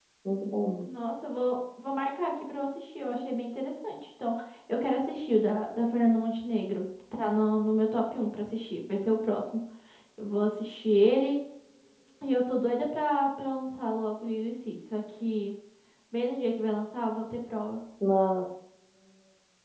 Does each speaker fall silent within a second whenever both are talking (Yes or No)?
Yes